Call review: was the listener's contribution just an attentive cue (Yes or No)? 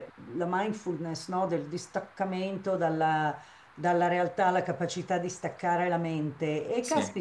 Yes